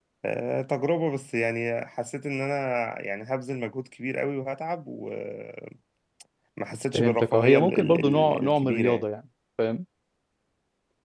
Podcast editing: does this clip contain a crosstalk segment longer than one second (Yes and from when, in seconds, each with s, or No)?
Yes, from 6.9 s